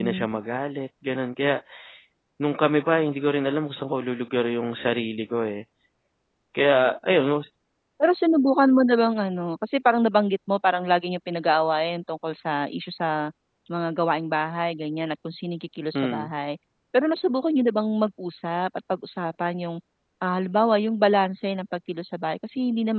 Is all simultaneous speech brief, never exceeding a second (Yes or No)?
Yes